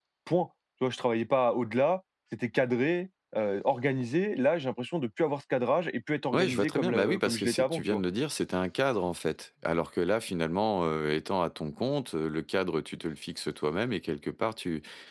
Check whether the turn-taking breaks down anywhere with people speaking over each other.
Yes, from 6.3 s

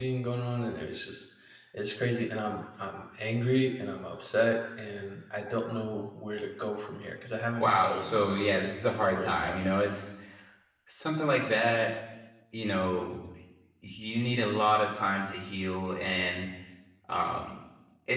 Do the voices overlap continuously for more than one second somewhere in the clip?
Yes, from 7.6 s

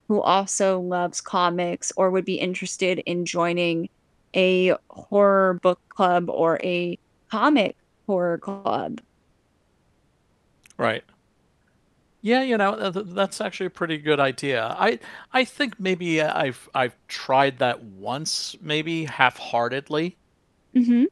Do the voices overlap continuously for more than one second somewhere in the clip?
No

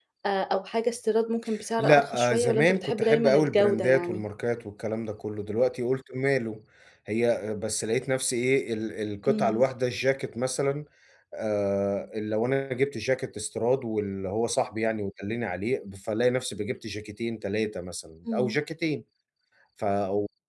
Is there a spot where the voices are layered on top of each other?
Yes, from 1.8 s

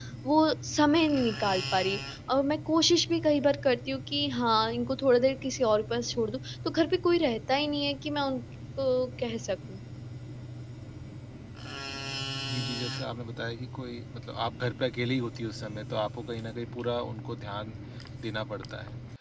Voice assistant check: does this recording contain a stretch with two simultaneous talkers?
No

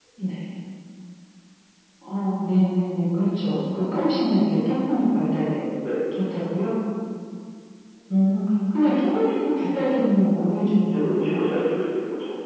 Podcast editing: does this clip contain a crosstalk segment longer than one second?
No

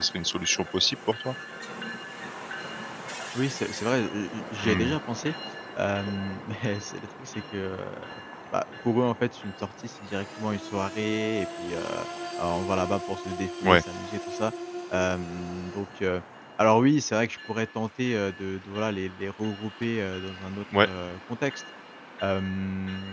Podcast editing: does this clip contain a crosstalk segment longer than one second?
No

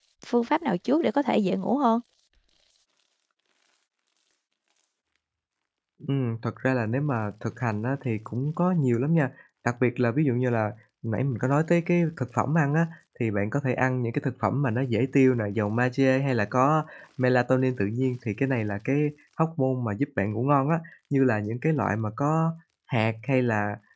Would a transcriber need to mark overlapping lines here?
No

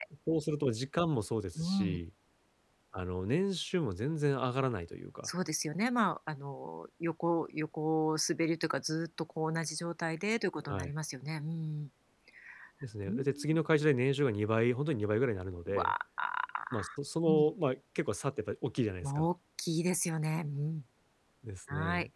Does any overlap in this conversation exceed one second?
No

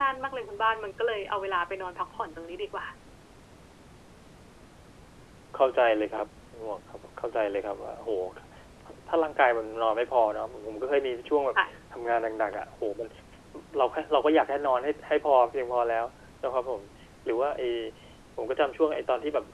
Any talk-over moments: No

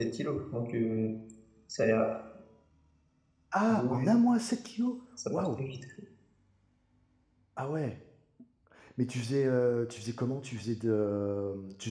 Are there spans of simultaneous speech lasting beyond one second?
No

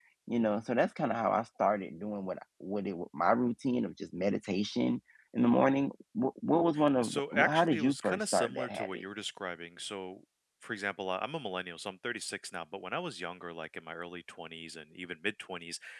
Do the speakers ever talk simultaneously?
Yes, from 7.0 s

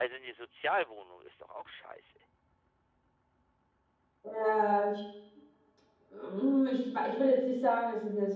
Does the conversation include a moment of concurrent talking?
No

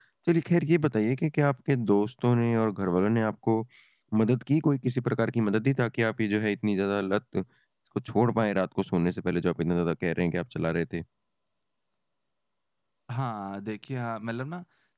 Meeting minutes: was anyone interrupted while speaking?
No

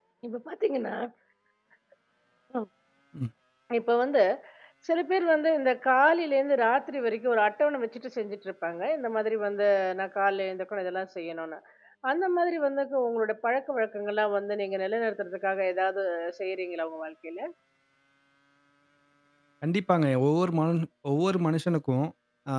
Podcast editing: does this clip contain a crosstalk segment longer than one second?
No

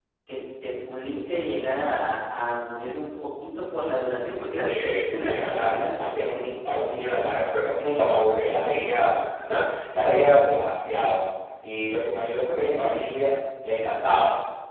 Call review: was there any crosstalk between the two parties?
Yes, from 4.6 s

